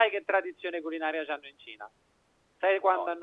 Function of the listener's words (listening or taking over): listening